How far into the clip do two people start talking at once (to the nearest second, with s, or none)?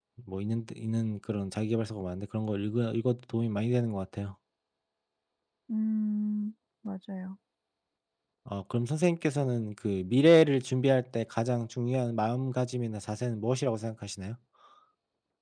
none